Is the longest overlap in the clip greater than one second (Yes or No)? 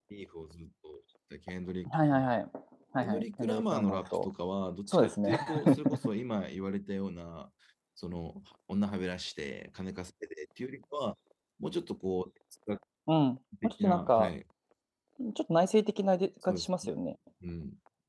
Yes